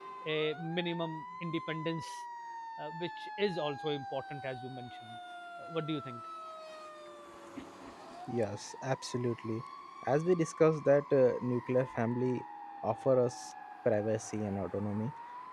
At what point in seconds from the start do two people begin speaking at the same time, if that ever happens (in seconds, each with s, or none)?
none